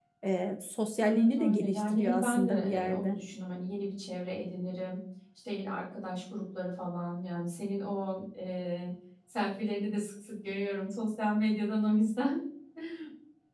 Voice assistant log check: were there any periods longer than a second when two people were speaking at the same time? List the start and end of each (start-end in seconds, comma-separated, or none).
1.0-3.1